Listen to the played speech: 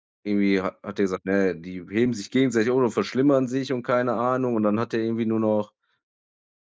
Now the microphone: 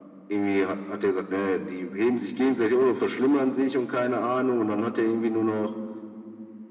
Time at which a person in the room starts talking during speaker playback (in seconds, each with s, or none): none